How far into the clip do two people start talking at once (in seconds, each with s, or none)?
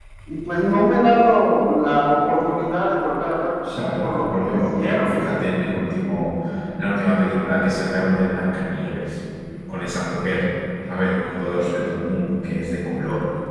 4.0 s